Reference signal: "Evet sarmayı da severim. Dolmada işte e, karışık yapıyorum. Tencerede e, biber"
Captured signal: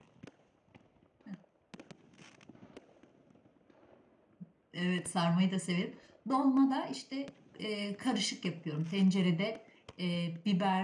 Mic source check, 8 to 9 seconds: echo only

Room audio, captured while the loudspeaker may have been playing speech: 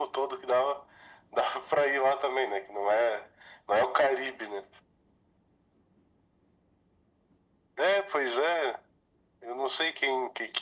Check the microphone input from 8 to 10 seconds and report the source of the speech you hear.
echo only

